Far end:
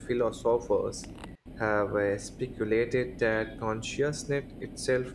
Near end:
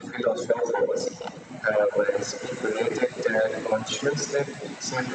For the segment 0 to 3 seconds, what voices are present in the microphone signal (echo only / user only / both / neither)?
echo only